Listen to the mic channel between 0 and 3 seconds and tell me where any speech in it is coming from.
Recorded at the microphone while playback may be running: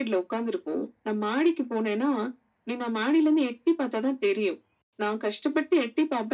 echo only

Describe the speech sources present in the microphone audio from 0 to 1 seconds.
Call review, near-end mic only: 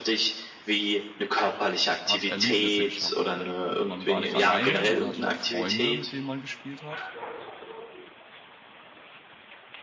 echo only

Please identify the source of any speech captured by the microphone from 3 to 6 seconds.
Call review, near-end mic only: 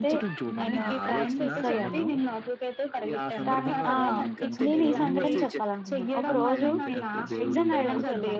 both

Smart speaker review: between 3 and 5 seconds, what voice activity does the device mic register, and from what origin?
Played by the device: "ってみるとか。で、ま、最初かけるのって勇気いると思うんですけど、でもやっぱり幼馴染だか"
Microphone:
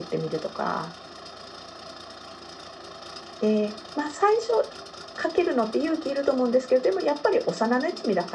echo only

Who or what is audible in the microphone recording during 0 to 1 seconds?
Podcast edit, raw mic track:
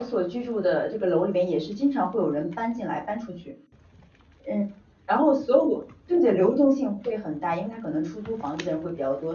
user only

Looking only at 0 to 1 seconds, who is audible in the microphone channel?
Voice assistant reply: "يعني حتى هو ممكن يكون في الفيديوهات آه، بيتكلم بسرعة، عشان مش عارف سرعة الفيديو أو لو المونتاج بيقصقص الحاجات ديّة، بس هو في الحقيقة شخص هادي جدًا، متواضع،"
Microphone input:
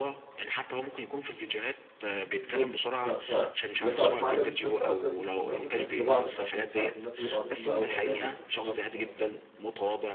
echo only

